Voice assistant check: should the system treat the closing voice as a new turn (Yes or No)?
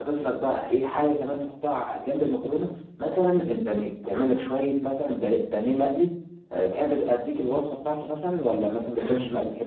No